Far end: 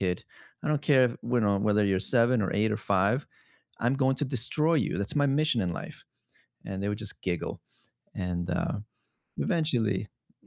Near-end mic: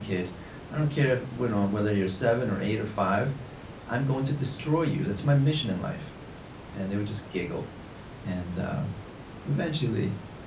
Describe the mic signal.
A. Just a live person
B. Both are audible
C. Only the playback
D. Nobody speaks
C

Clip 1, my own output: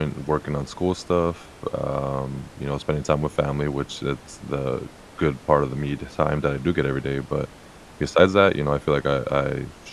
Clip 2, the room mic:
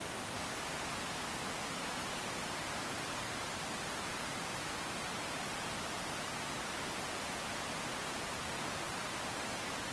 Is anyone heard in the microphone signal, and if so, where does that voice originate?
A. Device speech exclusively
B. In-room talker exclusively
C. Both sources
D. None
D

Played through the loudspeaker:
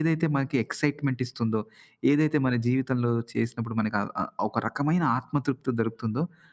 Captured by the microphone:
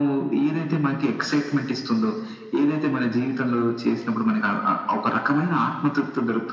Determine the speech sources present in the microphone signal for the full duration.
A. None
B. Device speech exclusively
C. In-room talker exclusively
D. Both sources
B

